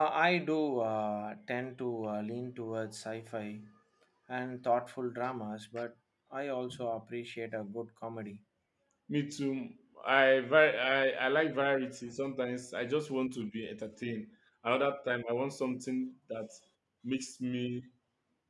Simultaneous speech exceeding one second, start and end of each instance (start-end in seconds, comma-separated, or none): none